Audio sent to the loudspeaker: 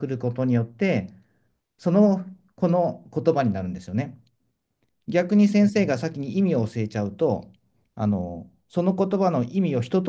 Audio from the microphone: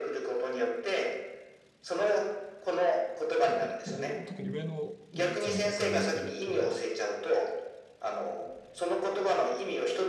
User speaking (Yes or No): Yes